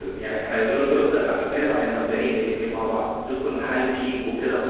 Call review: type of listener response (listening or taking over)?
listening